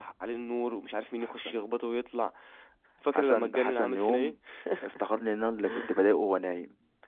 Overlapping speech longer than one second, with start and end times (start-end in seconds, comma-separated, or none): 3.1-4.3